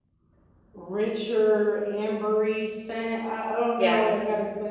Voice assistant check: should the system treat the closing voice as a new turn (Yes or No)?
No